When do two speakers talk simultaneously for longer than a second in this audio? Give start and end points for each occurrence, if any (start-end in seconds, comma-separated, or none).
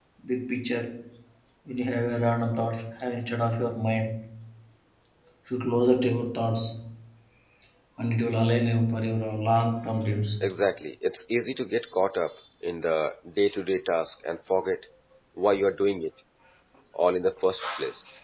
none